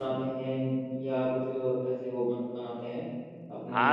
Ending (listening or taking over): taking over